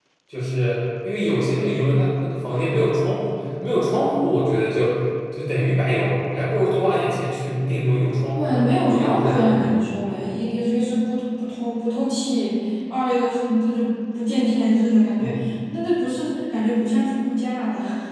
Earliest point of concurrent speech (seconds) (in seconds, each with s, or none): 8.3 s